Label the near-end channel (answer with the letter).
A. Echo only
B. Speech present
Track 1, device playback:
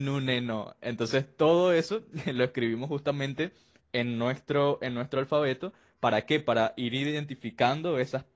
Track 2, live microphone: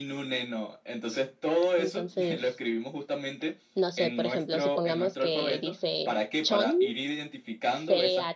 B